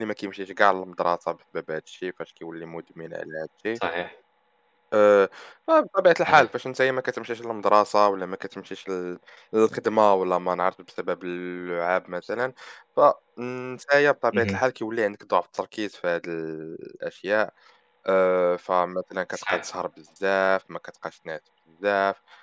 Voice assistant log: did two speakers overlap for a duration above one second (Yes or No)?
No